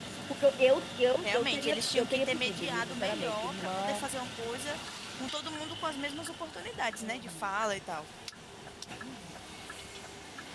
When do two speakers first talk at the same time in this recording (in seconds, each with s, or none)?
1.2 s